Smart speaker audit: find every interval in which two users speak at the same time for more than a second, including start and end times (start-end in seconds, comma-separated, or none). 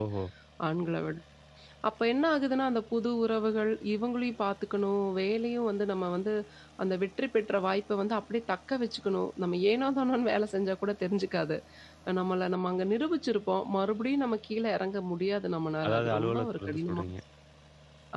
15.9-17.1